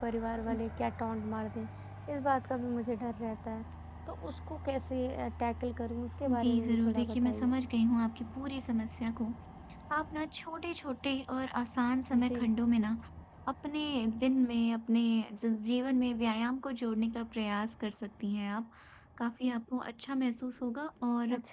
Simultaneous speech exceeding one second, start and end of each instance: 6.3-7.5

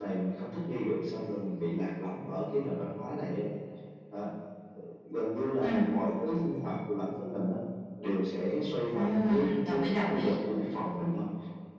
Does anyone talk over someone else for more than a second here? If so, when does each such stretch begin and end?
8.9-10.3

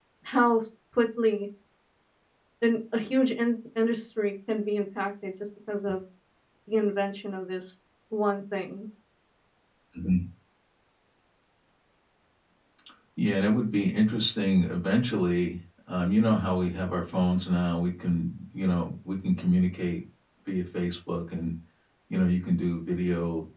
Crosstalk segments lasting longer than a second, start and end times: none

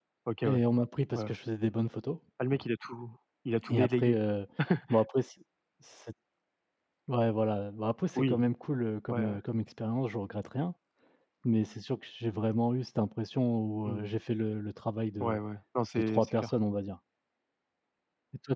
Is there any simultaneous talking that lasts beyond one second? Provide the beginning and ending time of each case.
none

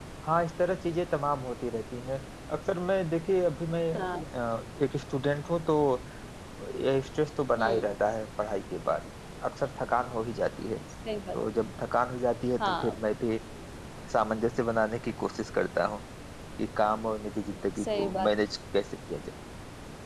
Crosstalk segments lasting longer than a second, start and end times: none

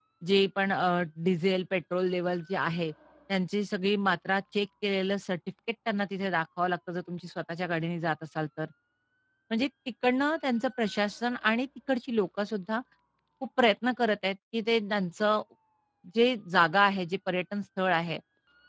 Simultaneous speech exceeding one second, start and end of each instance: none

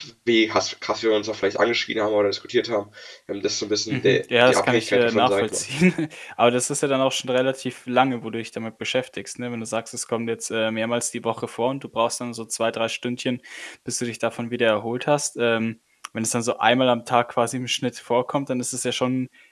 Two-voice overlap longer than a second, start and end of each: 3.9-5.6

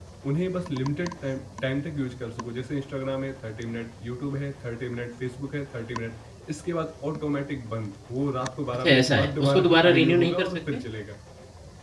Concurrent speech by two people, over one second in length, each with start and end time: 8.8-10.6

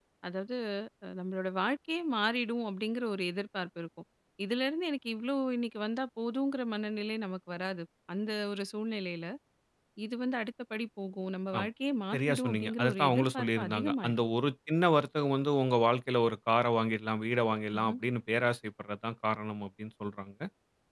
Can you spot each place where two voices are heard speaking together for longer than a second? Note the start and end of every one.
12.1-14.2

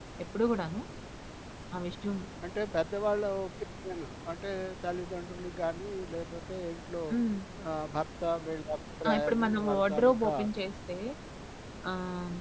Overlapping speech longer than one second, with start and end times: 9.1-10.3

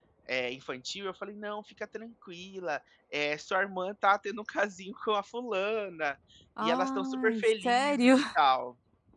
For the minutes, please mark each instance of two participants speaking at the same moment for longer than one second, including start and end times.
6.6-8.1

